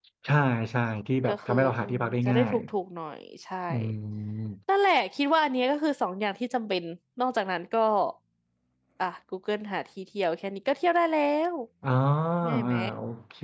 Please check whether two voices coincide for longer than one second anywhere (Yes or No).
Yes